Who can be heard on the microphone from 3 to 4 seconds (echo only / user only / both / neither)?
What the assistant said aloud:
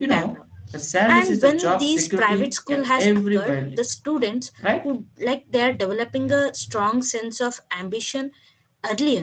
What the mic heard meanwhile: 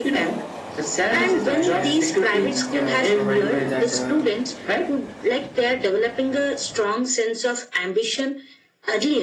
both